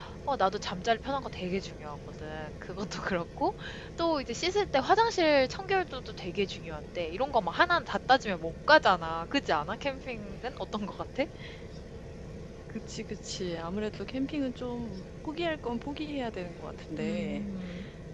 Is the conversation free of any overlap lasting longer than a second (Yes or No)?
Yes